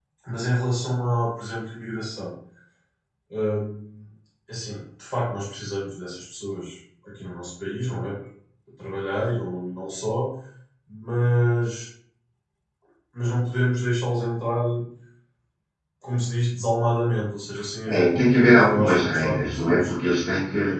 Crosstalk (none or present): present